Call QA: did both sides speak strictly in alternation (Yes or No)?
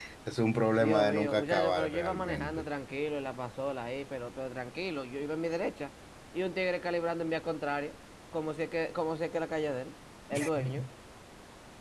No